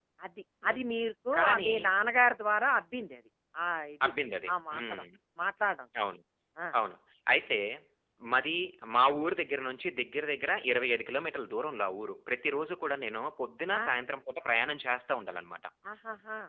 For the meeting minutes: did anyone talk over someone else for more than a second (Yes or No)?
No